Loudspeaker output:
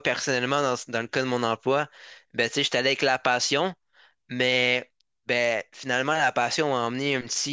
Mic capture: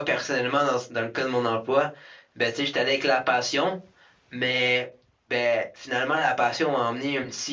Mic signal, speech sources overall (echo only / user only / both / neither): echo only